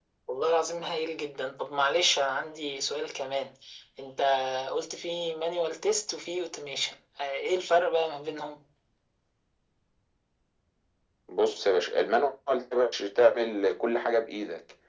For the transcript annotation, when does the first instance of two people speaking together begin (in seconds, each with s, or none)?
none